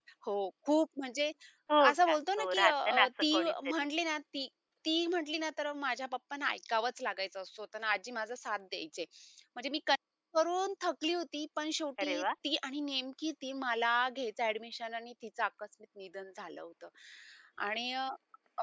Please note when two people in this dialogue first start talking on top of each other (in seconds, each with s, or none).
1.9 s